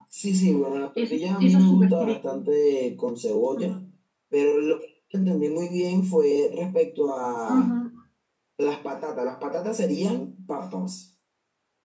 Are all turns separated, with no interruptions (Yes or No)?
No